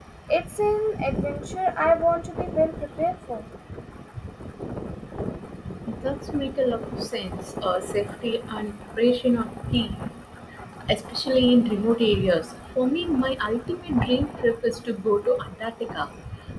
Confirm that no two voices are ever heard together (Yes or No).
Yes